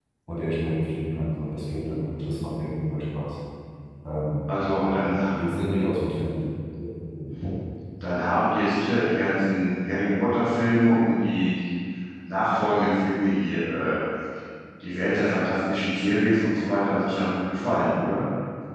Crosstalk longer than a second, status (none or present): none